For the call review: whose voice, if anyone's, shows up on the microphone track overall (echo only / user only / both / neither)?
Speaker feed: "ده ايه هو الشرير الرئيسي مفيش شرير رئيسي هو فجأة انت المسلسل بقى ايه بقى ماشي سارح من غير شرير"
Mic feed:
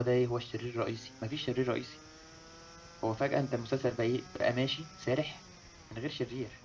echo only